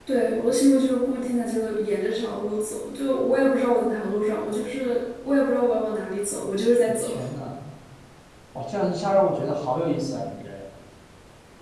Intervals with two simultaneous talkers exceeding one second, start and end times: none

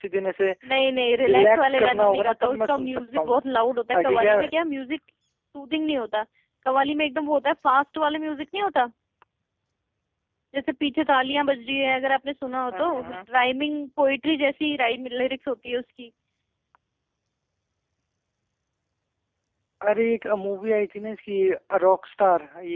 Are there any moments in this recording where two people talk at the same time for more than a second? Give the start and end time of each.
1.2-3.3

